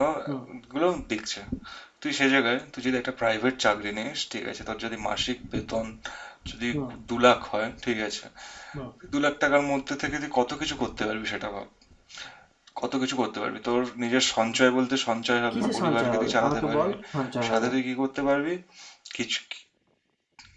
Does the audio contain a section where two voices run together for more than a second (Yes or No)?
Yes